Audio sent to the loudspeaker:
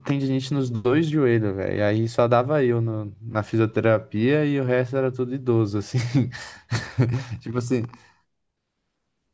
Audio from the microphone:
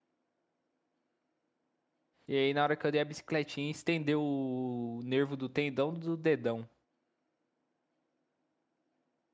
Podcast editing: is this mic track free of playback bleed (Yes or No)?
Yes